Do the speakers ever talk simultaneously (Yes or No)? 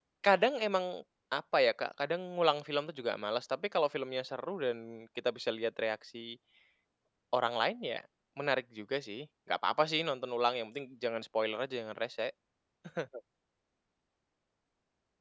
No